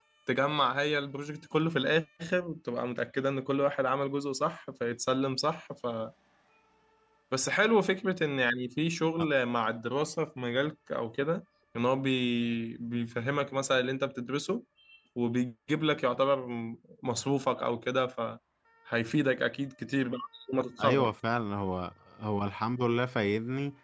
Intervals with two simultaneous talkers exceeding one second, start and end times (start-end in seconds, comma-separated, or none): none